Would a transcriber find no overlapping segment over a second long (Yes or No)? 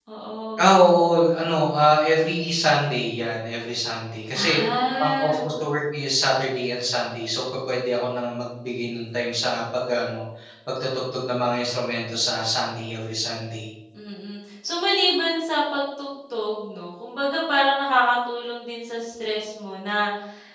Yes